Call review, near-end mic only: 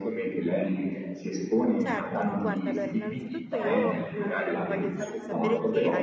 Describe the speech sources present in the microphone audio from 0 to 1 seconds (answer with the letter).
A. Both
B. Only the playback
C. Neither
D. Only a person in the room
B